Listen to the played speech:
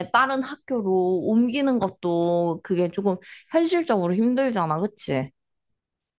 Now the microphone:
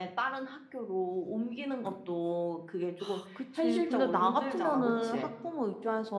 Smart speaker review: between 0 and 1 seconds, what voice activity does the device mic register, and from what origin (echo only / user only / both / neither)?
echo only